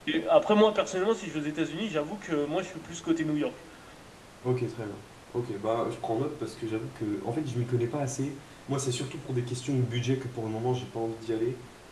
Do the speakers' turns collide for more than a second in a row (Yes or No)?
No